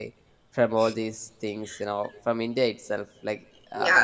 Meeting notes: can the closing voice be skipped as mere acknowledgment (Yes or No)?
No